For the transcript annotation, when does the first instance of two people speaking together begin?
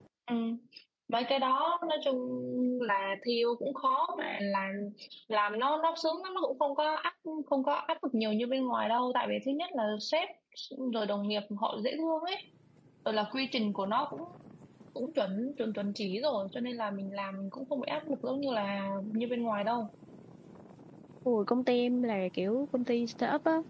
none

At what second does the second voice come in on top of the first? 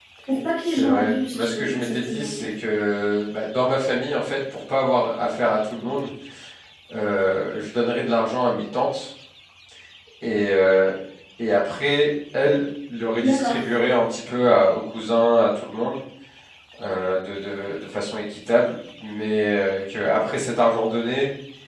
1 s

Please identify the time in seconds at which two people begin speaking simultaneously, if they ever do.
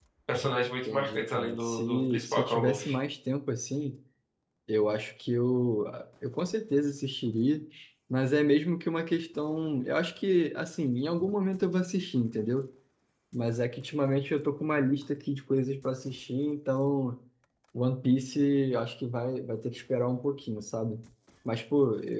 1 s

